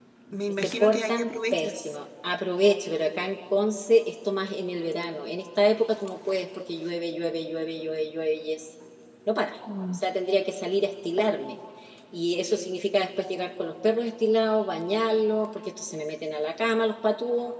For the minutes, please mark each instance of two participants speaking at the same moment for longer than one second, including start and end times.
0.6-1.9

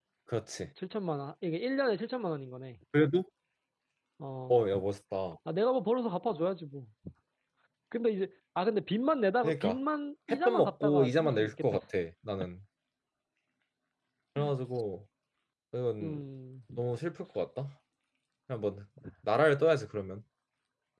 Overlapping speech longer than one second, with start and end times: 10.3-11.8

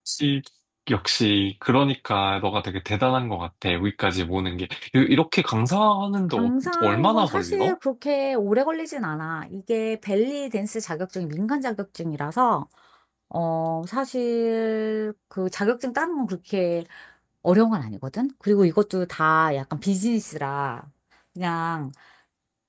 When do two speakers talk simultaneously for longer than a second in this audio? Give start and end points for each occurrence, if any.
6.4-7.8

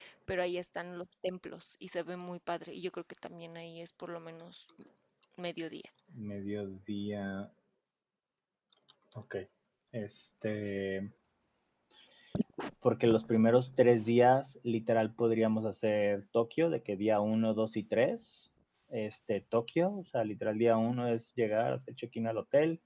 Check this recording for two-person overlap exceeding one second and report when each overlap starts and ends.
none

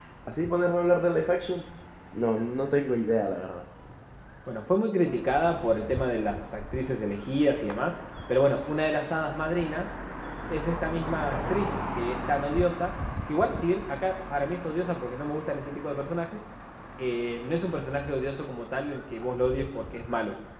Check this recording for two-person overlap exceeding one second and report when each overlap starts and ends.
none

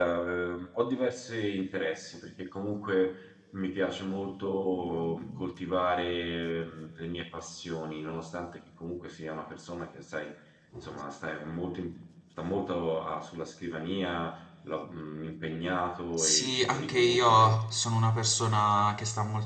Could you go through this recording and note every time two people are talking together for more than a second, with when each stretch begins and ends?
16.2-17.6

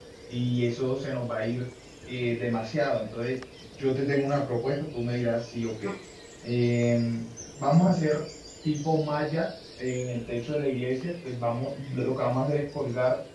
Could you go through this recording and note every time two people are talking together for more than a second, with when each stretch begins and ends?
none

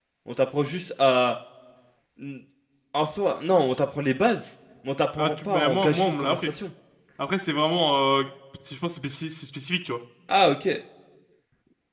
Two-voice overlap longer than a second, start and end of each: 5.2-6.5

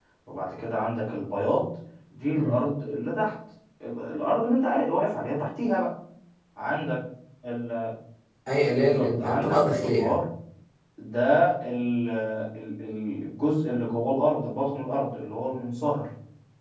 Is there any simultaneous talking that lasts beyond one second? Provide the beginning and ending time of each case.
8.7-10.2

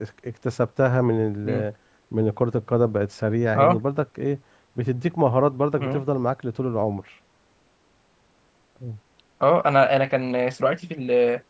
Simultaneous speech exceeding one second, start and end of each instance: none

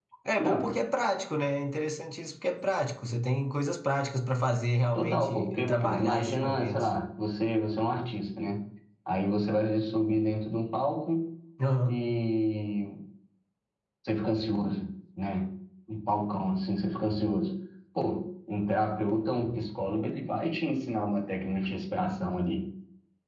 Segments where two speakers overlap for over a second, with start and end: 4.9-6.9

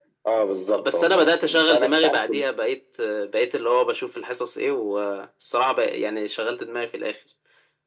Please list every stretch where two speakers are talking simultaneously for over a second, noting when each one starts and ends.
0.8-2.4

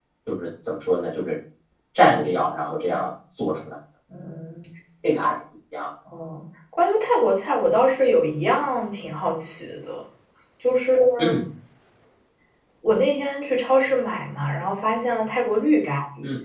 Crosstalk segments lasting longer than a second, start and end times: none

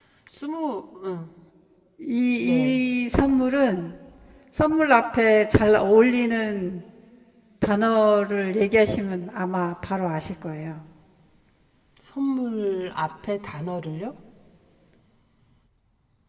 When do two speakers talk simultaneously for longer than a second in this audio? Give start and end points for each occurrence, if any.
none

